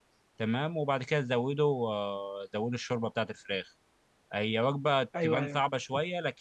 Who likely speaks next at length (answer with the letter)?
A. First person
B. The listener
A